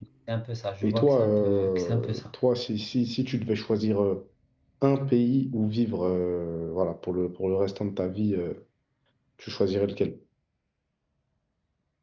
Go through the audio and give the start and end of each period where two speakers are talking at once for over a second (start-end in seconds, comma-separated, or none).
0.8-2.2